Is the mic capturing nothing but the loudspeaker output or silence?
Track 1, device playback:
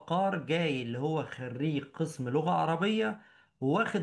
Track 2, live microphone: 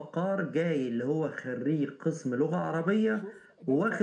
No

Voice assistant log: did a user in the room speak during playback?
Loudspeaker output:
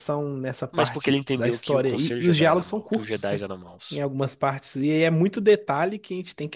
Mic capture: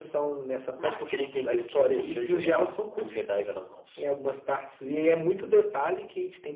No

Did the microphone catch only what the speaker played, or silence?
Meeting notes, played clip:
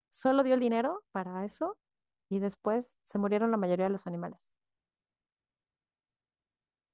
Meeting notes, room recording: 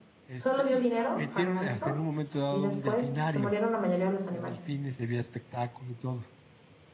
No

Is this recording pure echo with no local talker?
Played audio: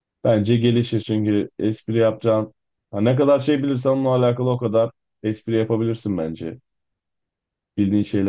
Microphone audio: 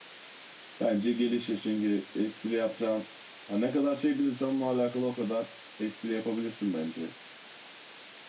Yes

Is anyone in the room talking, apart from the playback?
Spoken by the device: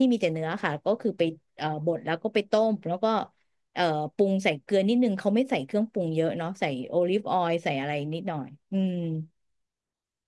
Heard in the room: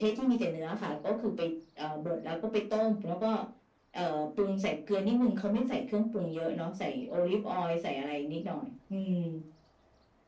No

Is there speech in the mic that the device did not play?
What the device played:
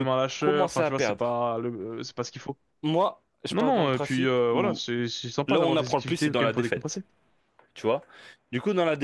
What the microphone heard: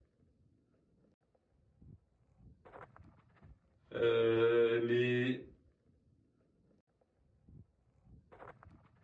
Yes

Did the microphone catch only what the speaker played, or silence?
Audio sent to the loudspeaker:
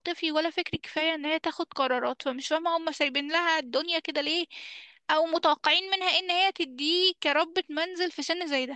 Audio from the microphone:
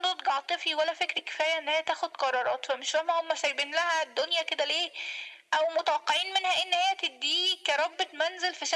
Yes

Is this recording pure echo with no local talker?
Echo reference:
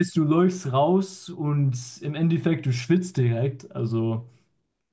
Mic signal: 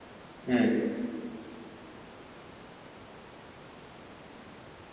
No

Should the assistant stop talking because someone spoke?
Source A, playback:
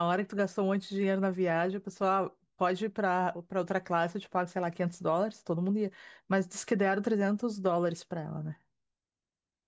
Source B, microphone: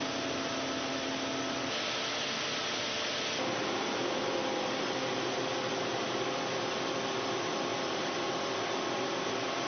No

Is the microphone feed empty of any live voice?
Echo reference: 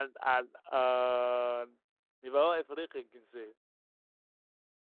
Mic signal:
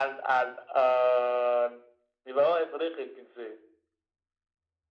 Yes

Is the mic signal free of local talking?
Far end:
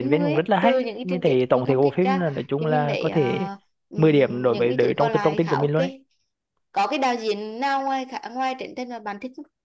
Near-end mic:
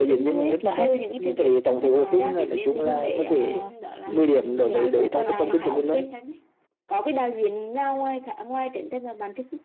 No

